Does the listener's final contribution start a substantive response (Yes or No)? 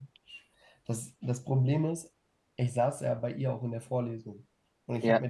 No